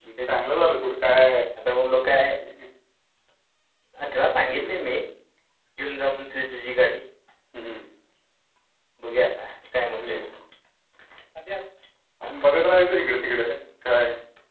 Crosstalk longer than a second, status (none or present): none